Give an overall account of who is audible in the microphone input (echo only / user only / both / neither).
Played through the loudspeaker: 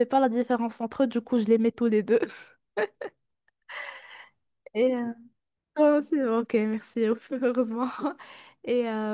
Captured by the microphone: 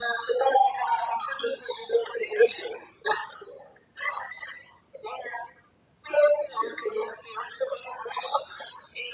echo only